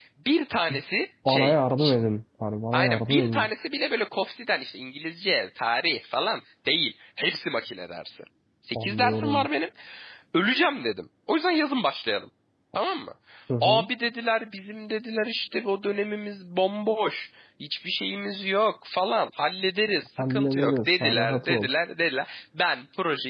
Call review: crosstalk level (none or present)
present